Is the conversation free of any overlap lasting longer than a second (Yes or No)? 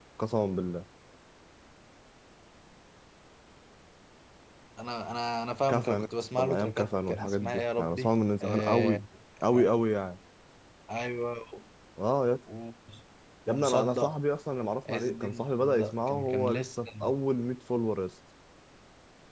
No